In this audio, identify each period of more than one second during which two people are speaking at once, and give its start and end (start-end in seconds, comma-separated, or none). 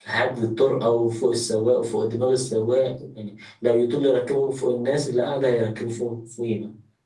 none